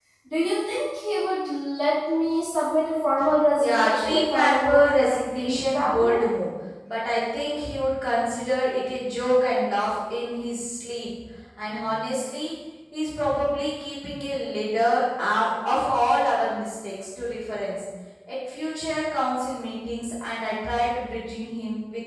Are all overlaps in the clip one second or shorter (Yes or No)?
No